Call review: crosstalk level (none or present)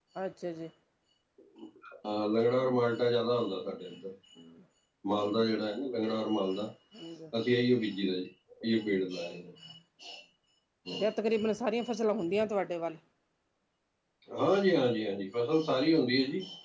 none